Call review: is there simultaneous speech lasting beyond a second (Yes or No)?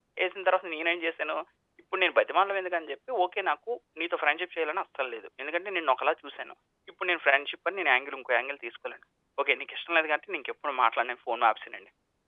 No